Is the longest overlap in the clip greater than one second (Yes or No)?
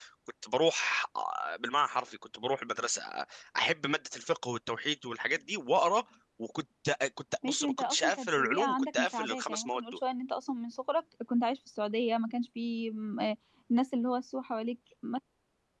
Yes